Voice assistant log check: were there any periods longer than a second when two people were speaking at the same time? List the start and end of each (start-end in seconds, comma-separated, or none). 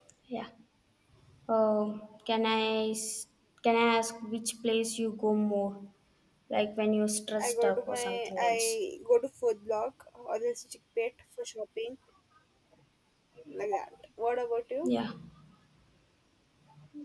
7.4-8.8